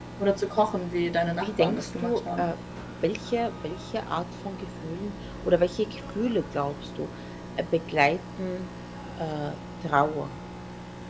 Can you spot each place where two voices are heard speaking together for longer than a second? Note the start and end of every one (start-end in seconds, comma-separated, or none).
1.3-2.5